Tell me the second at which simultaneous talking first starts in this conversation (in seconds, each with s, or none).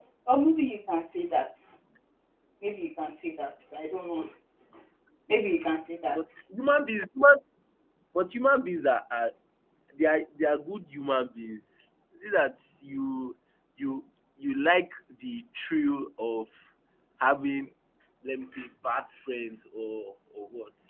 none